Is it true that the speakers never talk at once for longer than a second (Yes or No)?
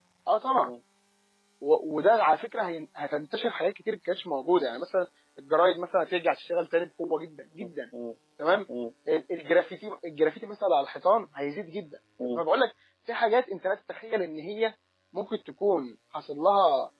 Yes